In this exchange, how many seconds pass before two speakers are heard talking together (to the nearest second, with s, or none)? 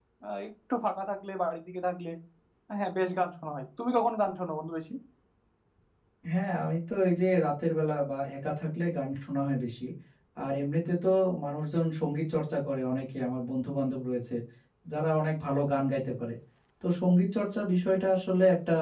none